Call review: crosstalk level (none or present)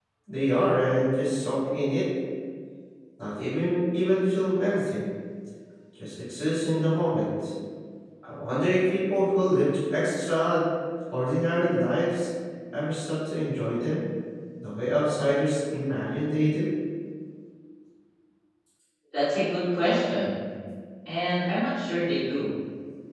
none